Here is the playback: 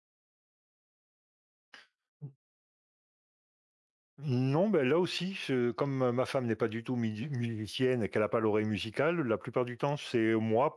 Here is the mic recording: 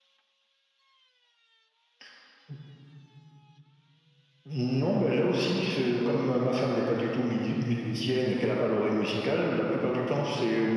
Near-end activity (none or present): present